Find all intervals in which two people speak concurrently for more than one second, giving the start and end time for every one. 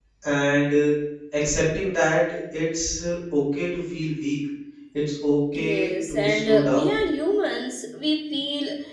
5.5-7.0

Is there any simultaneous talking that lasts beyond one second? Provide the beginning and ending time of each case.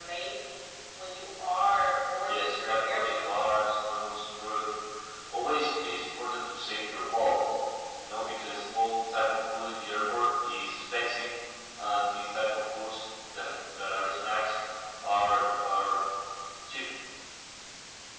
2.2-3.5

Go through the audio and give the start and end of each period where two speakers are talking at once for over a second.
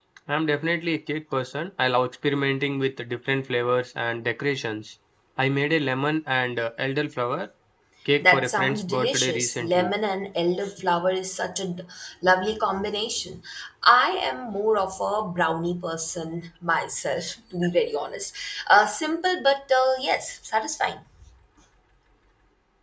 8.2-9.9

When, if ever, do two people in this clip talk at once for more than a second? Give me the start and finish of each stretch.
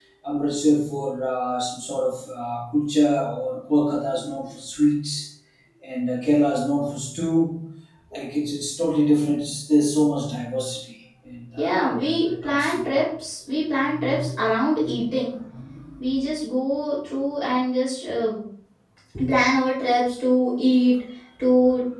11.6-12.9

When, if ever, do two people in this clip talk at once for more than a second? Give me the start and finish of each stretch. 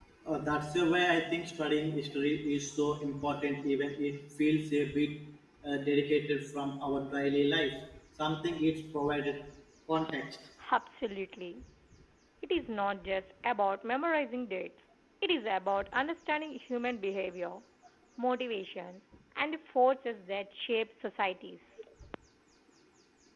none

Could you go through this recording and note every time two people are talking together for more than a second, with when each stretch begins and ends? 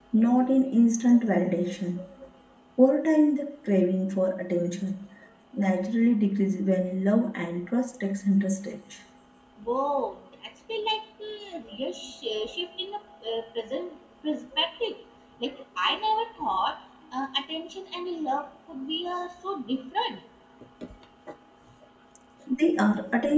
none

